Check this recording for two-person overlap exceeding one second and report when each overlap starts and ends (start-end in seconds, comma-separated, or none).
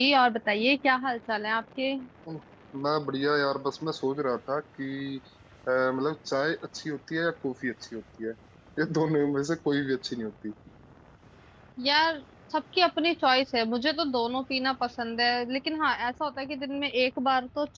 none